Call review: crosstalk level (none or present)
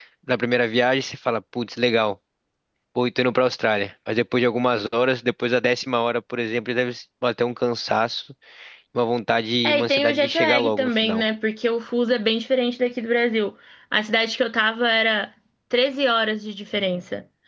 present